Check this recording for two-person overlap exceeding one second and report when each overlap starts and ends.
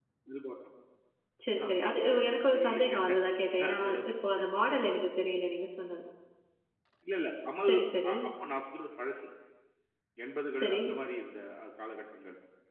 1.7-3.0

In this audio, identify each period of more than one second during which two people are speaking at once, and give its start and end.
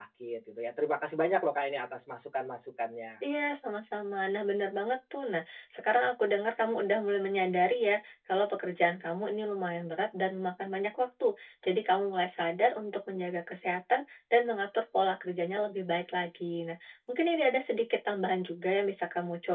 none

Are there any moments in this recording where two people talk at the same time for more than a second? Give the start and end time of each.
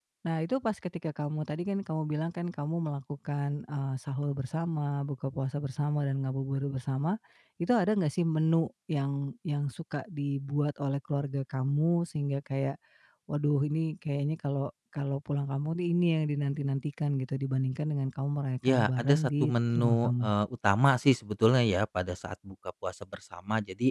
18.6-20.3

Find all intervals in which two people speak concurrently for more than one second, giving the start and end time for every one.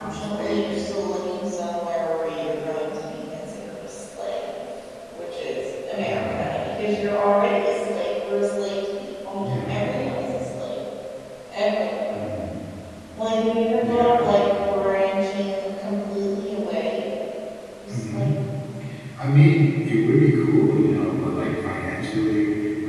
none

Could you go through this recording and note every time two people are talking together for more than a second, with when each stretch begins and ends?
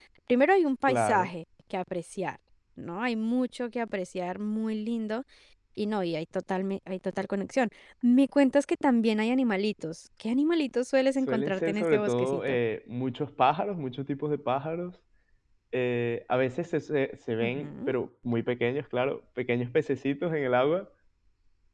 11.3-12.6

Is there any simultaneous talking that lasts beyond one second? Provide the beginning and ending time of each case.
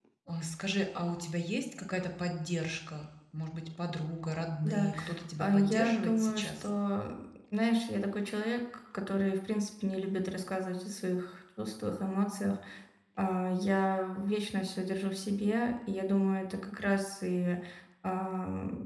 5.4-6.7

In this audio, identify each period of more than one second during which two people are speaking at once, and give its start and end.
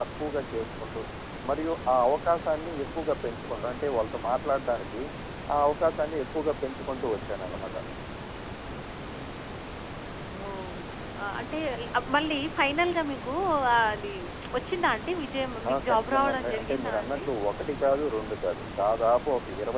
15.7-17.2

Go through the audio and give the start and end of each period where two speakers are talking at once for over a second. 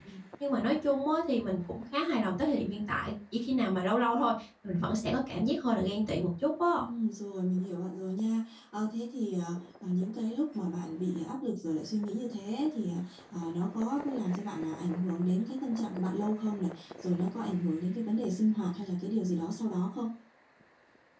none

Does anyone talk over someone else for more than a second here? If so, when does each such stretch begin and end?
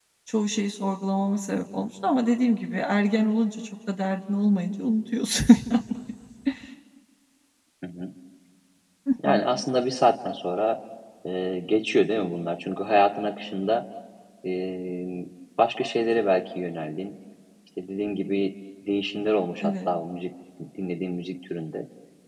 none

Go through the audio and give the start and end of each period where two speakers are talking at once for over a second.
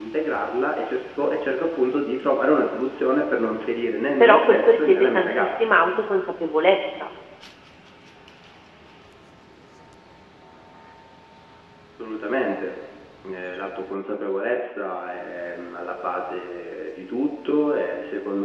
4.2-5.6

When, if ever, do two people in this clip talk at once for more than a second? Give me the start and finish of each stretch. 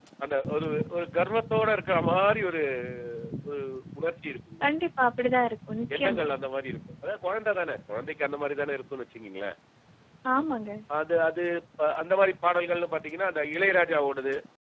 none

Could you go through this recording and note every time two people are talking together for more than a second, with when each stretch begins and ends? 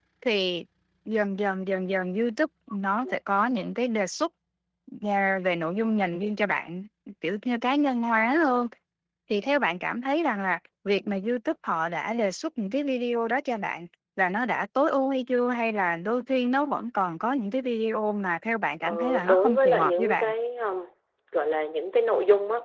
18.8-20.3

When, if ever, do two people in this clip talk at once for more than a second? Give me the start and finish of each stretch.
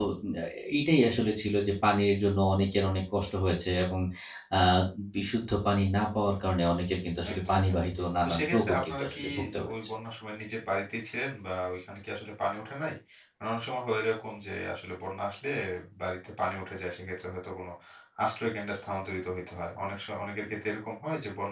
8.2-9.7

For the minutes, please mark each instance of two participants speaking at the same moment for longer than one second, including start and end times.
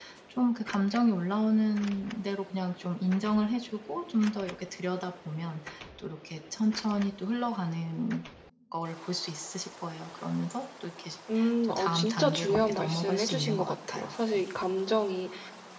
11.6-14.4

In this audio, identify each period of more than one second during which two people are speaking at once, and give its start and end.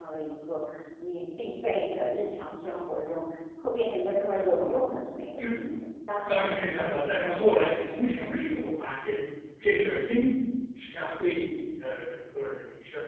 6.3-7.7

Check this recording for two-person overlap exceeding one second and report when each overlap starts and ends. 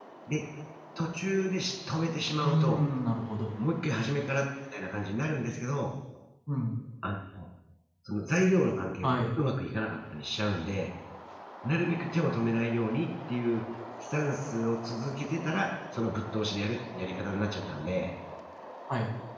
none

